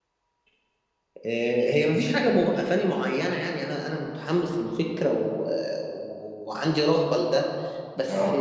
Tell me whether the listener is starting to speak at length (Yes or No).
No